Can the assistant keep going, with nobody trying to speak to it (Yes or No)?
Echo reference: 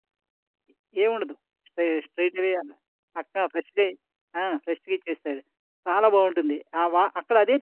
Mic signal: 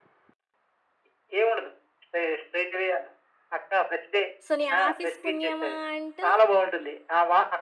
No